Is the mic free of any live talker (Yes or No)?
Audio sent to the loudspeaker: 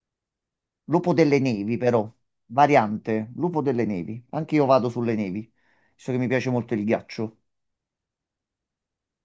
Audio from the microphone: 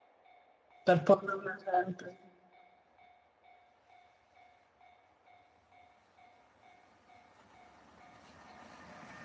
No